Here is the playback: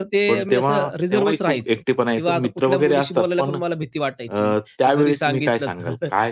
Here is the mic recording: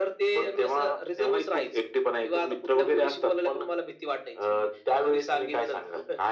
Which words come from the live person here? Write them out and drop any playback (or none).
none